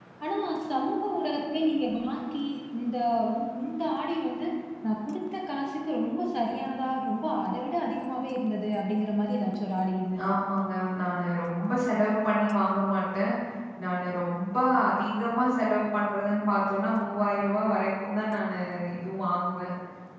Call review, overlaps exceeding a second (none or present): none